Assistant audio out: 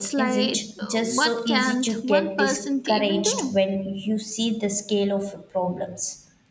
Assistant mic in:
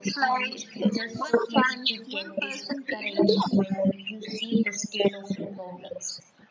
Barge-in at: none

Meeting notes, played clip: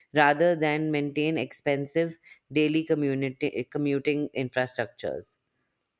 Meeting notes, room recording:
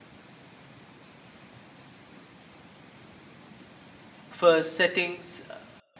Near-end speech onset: 4 s

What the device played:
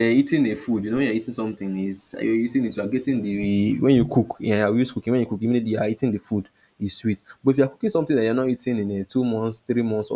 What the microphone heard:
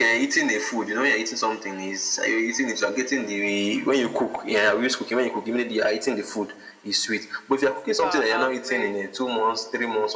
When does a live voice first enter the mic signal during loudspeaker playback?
8 s

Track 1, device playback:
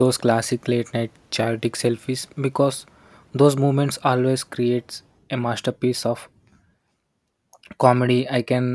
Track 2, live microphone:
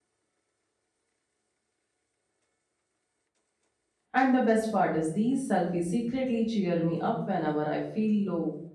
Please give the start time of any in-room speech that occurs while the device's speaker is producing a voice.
4 s

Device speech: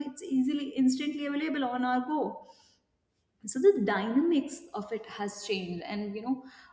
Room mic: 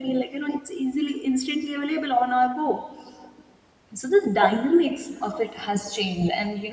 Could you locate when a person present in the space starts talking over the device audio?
none

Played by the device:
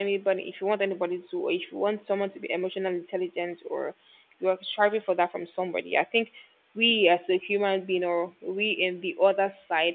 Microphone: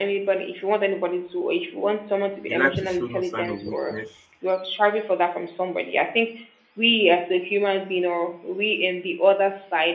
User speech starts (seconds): 2 s

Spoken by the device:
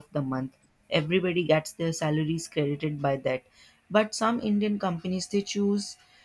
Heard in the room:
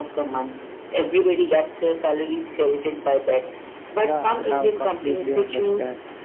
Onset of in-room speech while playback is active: 4 s

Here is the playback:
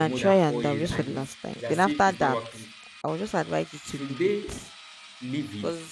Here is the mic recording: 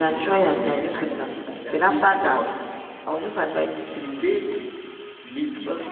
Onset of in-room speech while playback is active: none

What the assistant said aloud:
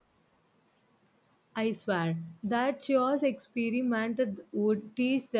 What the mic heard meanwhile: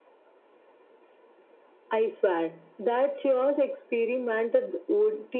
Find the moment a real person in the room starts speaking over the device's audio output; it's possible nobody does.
none

